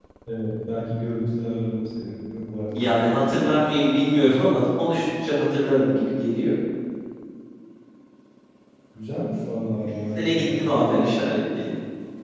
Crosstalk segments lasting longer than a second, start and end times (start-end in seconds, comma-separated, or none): 9.8-11.0